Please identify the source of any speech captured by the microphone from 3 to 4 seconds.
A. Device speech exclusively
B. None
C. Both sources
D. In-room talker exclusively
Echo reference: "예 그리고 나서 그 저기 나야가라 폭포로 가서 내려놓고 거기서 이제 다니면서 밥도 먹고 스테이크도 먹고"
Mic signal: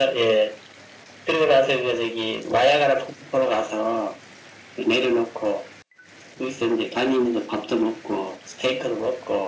A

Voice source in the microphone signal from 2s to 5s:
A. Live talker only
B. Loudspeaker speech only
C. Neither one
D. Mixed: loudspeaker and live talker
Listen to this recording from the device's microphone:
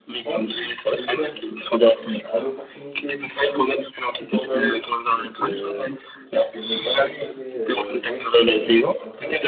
D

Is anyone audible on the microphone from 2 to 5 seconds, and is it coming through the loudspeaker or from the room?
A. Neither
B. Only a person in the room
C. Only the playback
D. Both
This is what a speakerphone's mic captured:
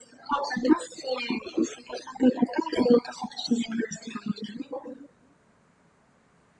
C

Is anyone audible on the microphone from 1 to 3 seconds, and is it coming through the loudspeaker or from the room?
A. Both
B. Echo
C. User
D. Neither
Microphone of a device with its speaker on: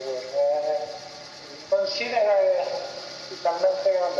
B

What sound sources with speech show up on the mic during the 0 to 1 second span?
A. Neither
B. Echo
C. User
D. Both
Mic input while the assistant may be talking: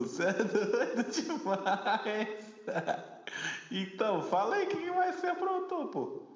B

